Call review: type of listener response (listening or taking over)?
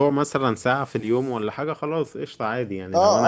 taking over